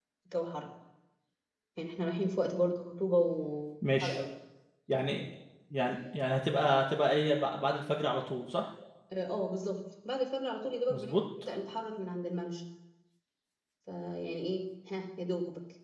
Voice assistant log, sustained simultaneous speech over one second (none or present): none